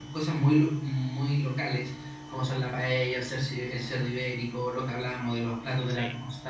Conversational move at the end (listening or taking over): listening